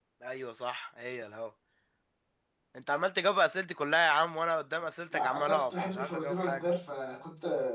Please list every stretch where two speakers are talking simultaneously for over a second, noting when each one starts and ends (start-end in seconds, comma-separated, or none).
5.1-6.6